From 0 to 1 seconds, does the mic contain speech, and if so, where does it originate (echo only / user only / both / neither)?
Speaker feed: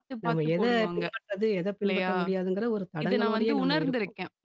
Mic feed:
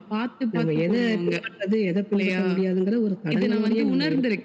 echo only